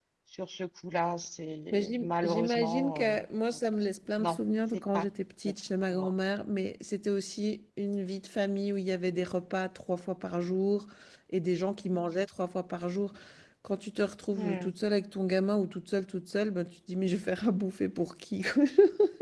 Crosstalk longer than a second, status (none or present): present